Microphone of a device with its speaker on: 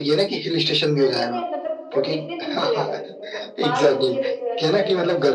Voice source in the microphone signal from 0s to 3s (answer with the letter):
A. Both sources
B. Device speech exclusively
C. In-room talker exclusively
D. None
A